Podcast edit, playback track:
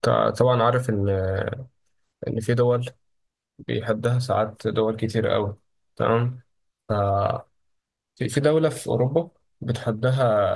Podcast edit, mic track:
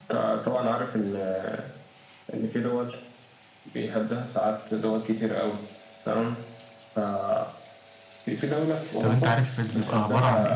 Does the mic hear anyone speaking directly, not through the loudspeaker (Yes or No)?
Yes